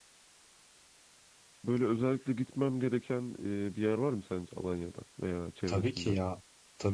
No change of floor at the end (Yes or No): No